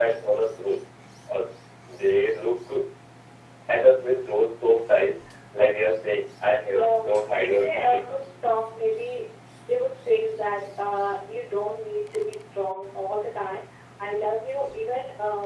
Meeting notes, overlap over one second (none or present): present